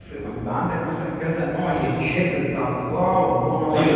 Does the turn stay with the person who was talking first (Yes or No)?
No